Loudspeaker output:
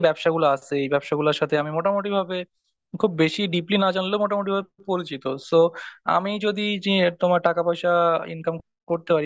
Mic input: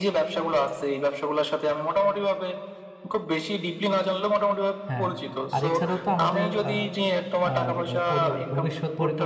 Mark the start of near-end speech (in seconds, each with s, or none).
4.9 s